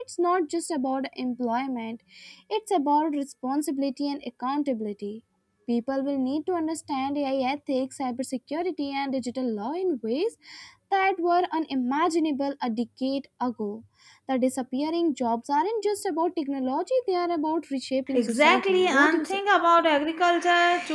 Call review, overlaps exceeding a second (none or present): present